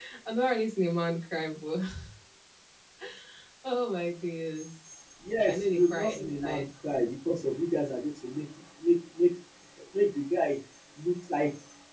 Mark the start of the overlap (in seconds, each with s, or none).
5.2 s